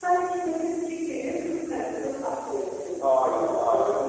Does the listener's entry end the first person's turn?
Yes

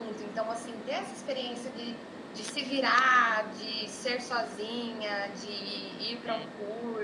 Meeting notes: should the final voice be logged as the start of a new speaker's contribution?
No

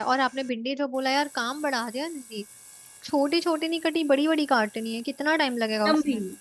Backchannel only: No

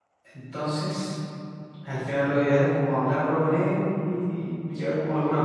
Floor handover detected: Yes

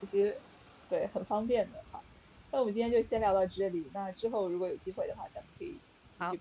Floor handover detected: Yes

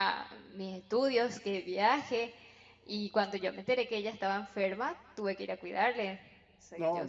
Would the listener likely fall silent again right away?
No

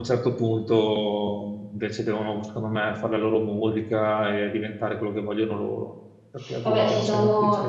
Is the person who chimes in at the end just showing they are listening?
No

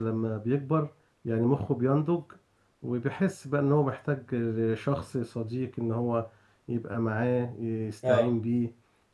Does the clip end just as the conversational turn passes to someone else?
No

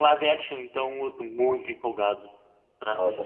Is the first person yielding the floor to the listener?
Yes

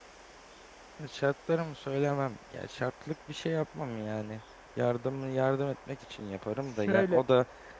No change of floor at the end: Yes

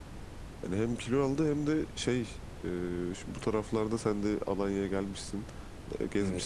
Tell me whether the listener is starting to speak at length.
No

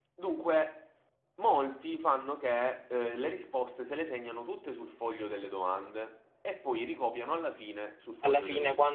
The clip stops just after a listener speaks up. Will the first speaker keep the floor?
No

